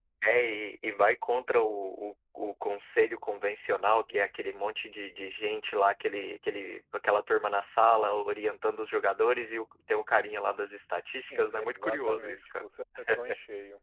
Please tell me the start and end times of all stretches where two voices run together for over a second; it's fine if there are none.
11.3-12.7

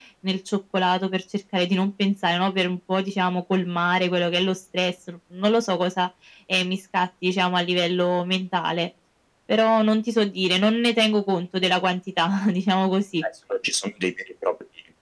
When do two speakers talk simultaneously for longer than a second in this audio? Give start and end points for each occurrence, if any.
none

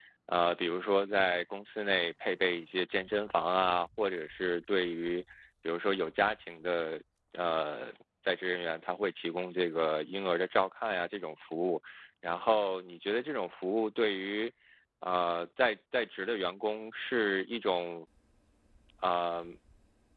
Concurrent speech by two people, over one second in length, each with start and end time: none

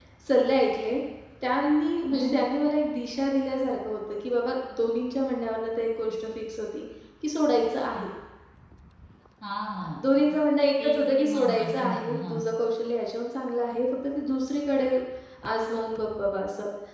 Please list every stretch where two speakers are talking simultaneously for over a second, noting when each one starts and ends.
10.8-12.4

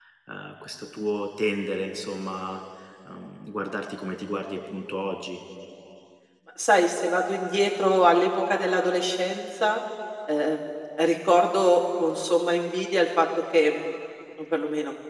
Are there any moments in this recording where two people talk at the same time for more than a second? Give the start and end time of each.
none

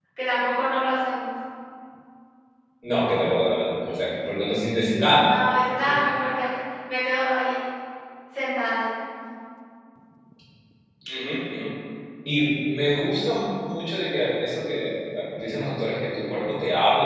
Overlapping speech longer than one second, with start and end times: none

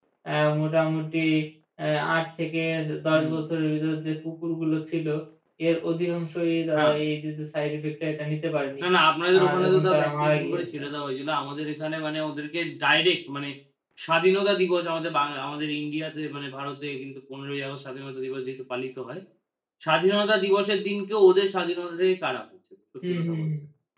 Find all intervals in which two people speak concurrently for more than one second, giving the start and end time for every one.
9.4-10.8

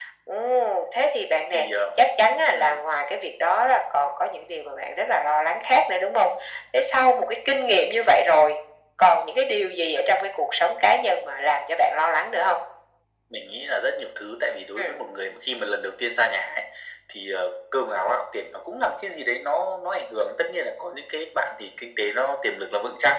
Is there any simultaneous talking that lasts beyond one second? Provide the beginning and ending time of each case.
none

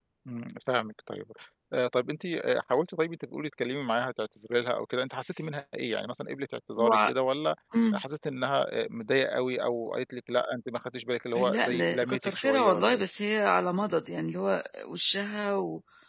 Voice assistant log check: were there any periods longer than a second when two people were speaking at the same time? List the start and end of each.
11.3-13.0

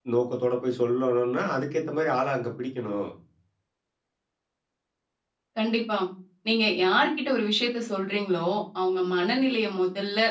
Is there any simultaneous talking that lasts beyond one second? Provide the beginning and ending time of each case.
none

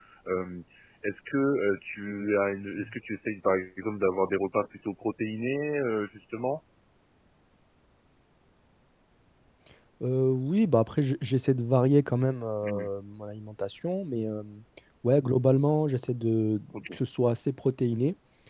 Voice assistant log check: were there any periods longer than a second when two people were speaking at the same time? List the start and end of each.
none

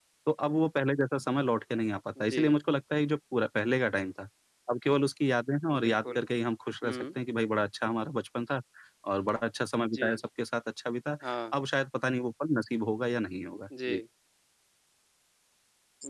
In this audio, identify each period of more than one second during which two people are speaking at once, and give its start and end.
none

